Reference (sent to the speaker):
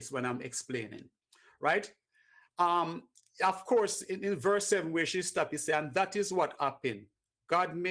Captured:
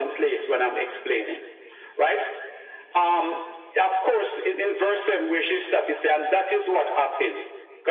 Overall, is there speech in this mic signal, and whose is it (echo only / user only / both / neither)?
echo only